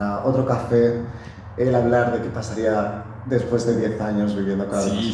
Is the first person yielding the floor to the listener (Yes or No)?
Yes